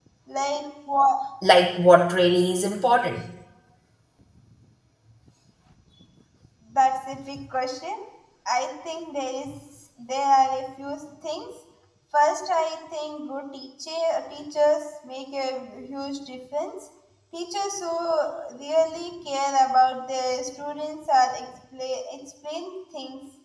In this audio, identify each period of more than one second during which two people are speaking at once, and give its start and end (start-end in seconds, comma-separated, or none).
none